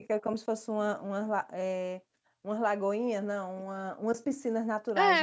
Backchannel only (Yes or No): No